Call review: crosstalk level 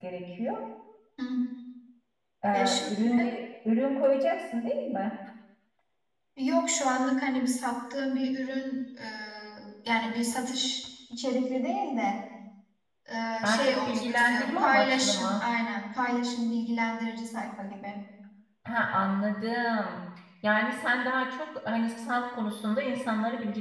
present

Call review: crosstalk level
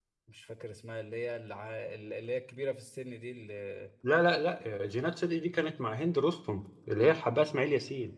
none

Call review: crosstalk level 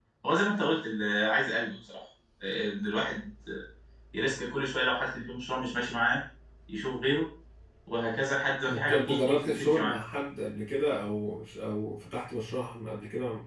present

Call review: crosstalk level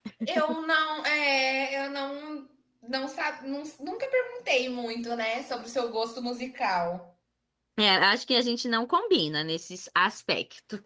none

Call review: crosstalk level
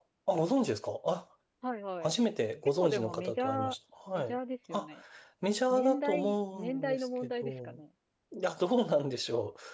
present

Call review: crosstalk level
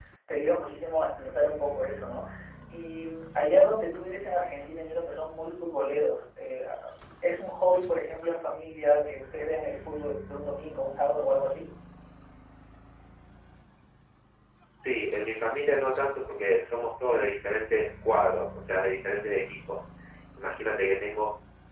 none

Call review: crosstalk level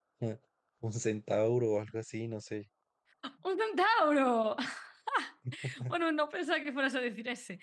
none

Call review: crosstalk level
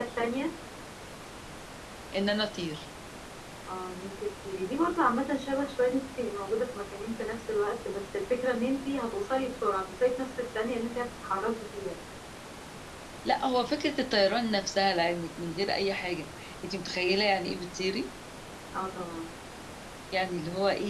none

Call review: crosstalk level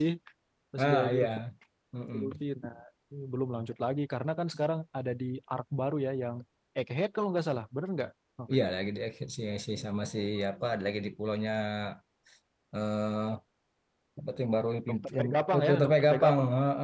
present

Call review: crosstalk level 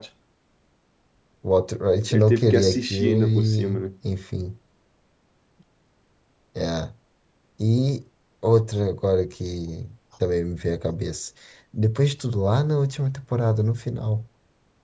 present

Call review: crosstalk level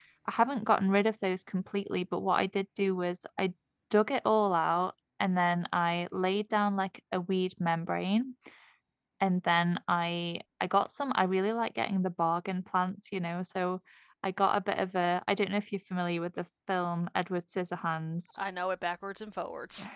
none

